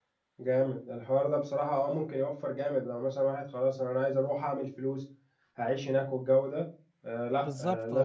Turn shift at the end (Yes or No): No